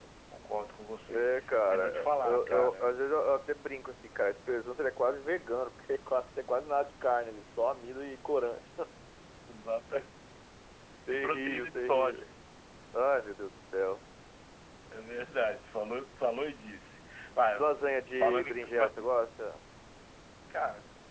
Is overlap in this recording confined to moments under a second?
No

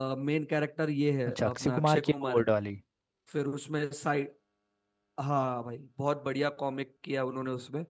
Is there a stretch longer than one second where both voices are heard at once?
Yes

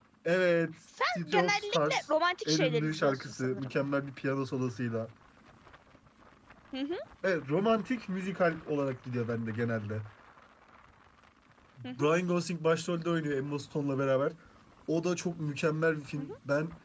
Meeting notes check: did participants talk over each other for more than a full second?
Yes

